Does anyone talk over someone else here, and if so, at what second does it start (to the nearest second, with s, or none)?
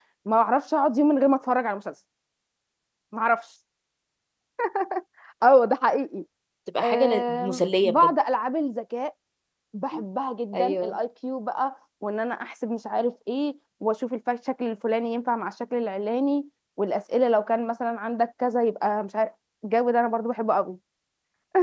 7 s